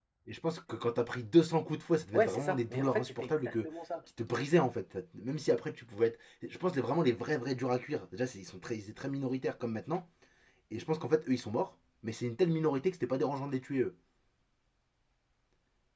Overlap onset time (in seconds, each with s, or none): 2.1 s